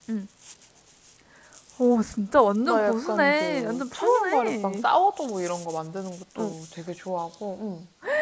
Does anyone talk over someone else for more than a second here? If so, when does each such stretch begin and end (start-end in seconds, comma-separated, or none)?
2.6-4.8